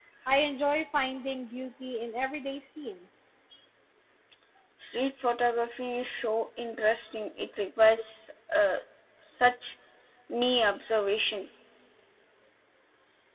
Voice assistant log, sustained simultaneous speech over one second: none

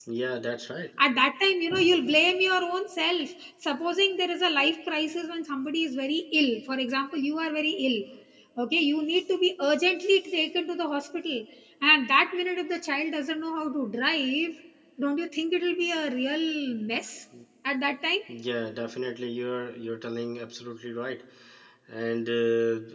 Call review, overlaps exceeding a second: none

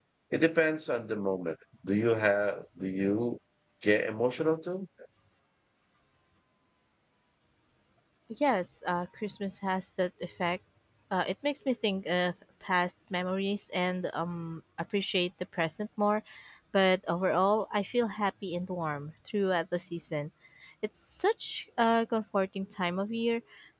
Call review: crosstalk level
none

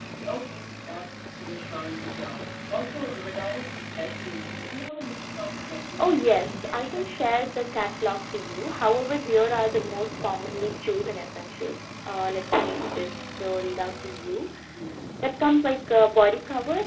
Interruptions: present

